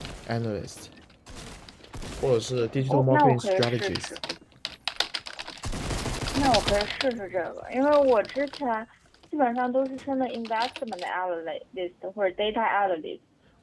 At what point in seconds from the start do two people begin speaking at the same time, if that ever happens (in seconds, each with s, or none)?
2.9 s